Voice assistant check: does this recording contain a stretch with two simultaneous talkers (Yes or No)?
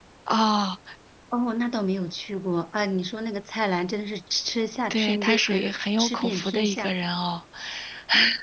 Yes